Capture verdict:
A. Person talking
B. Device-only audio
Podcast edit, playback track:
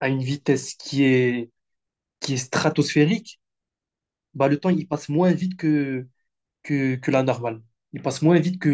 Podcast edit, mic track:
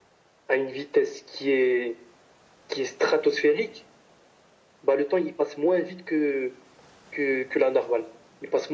B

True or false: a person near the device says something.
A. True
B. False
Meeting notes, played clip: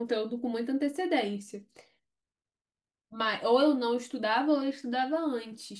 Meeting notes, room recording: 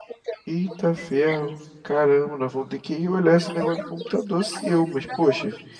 A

